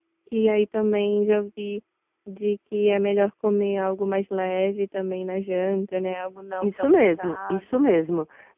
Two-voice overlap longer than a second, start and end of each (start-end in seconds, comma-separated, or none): 6.6-7.9